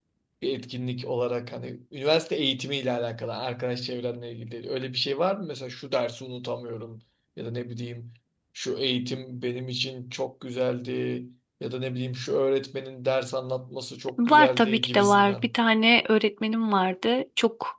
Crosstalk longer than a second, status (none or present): present